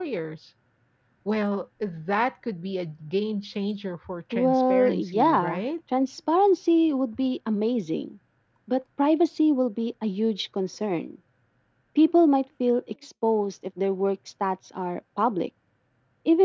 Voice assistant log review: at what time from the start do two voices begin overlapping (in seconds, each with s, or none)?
4.3 s